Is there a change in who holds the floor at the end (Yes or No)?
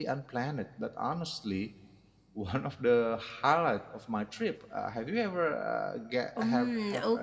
Yes